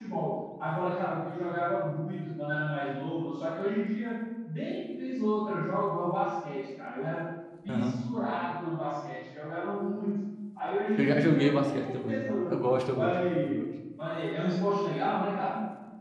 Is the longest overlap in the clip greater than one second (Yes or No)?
Yes